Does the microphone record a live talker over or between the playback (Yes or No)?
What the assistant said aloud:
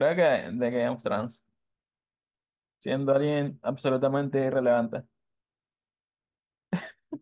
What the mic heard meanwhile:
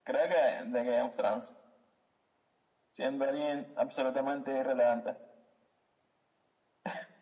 No